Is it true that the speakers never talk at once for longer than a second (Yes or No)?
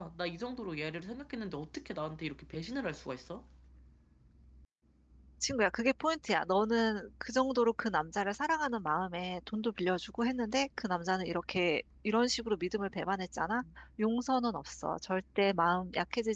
Yes